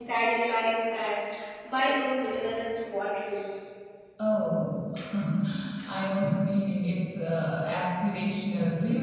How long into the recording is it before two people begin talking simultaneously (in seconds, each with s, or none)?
none